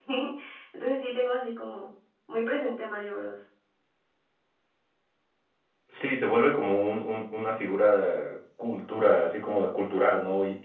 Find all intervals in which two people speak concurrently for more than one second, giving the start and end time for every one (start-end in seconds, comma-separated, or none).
none